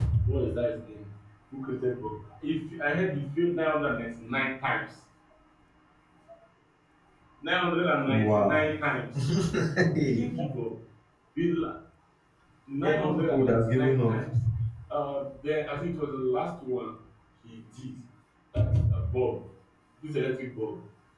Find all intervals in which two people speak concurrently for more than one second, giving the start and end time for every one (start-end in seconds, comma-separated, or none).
12.8-14.2